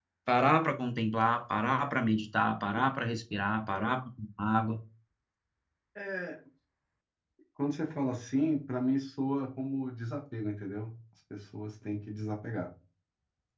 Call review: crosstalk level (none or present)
none